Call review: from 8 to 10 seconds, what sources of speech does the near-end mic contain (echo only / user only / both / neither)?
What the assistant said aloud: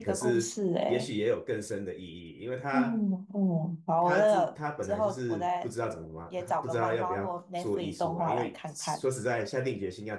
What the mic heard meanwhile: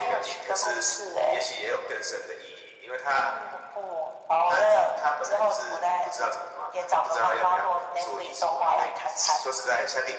echo only